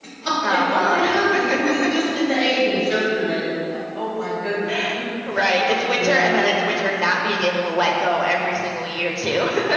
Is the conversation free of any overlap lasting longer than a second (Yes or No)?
No